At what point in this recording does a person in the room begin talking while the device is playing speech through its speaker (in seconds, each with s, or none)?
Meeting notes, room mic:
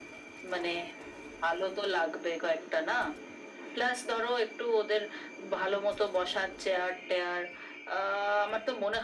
none